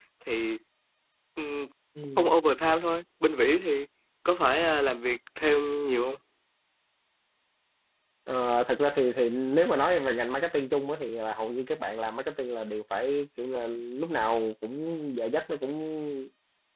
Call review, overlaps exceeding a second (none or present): none